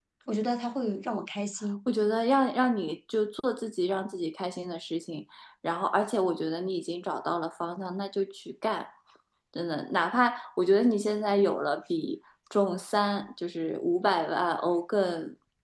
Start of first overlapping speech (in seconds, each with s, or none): none